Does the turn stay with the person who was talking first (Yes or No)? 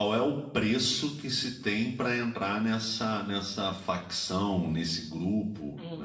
No